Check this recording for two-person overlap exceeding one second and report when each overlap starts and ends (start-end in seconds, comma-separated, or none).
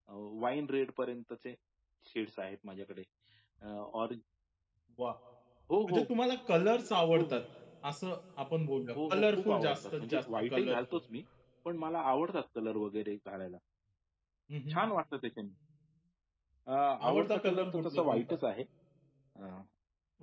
9.0-11.0, 17.1-18.4